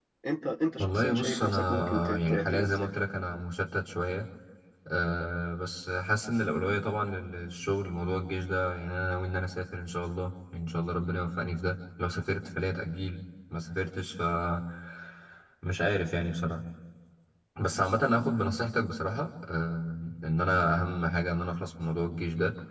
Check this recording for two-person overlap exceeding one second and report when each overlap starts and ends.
0.8-2.9

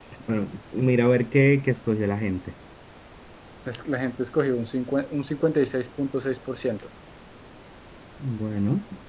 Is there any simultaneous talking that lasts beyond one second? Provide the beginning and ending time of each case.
none

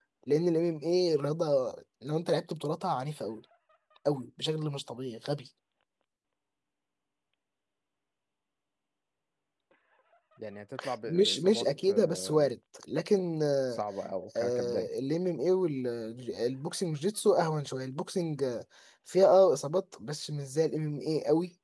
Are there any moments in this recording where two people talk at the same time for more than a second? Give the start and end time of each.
11.1-12.5

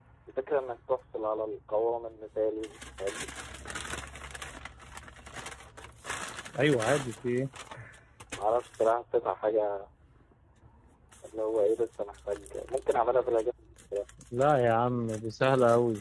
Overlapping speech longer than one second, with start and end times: none

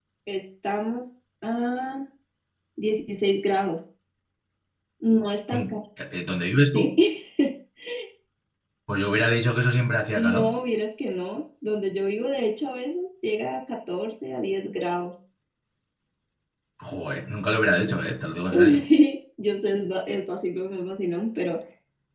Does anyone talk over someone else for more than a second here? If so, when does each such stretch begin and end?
none

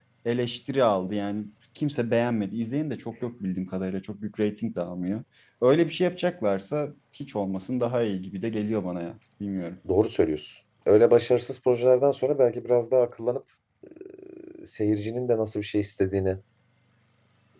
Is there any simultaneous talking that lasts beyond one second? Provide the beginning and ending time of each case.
none

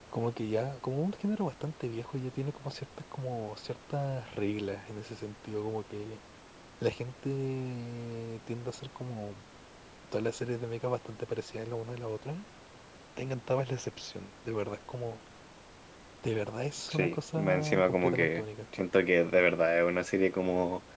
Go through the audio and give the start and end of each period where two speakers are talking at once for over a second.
16.9-18.4

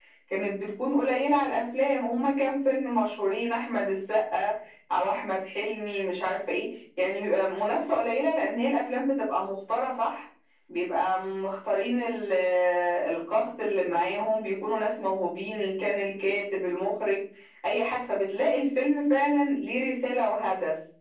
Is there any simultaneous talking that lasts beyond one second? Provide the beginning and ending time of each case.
none

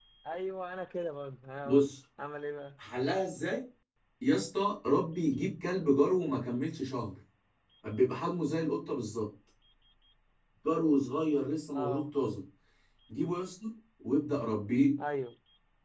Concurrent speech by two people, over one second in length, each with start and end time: none

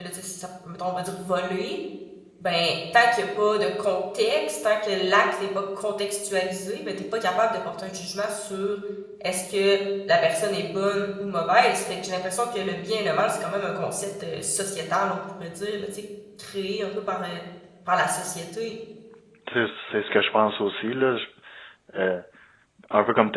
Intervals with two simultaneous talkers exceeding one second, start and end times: none

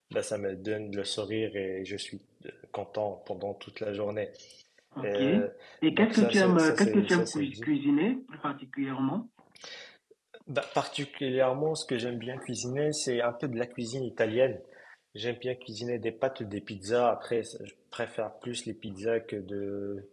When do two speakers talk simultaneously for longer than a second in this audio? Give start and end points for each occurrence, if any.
5.9-7.7

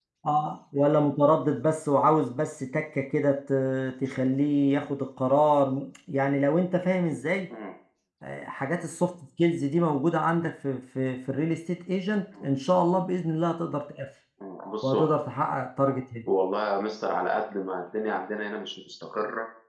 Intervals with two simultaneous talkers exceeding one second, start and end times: none

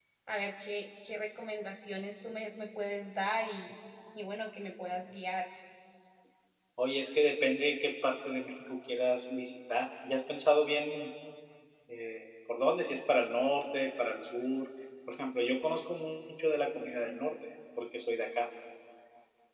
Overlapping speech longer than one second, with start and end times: none

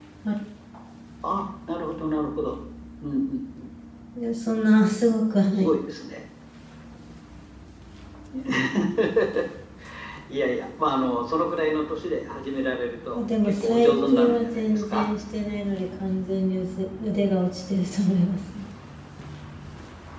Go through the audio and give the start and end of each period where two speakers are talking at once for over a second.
13.1-15.1

